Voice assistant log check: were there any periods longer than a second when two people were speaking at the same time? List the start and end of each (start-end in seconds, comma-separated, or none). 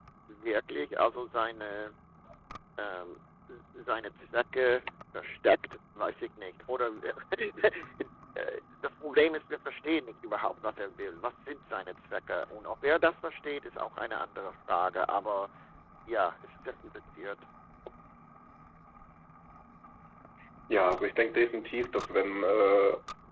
none